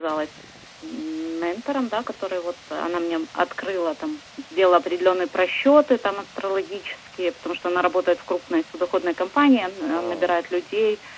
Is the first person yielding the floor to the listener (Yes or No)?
No